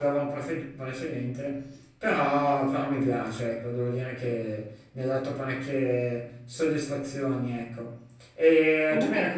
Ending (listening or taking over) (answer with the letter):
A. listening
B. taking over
A